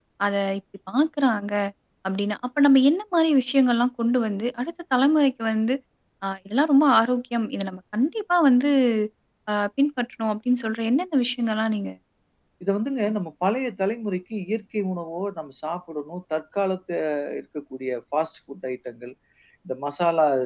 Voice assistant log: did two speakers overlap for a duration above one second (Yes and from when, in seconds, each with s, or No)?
No